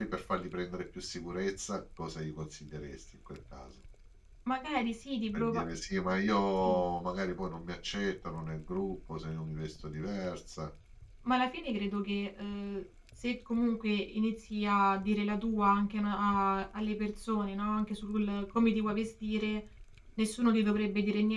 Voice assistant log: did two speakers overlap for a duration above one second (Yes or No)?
No